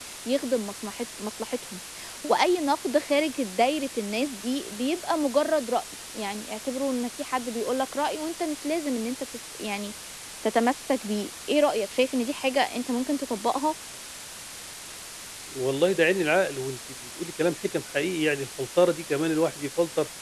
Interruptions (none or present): none